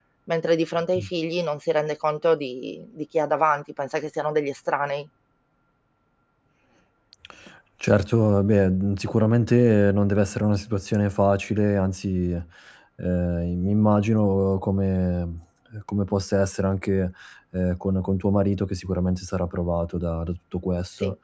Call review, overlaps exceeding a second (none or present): none